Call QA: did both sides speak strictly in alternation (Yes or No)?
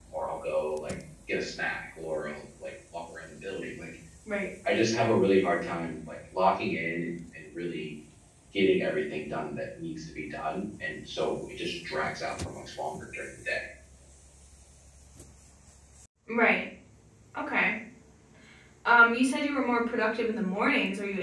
Yes